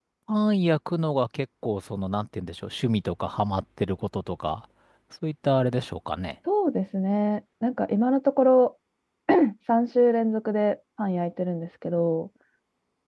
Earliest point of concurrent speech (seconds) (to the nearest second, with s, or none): none